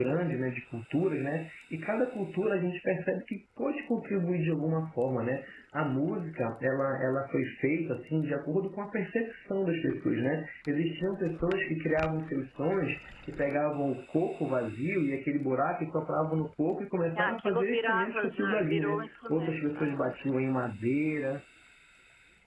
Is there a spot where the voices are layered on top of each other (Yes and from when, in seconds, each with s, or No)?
Yes, from 17.1 s